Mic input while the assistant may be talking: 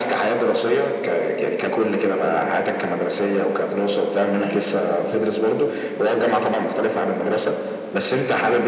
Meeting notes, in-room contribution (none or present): none